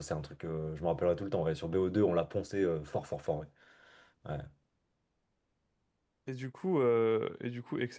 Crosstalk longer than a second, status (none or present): none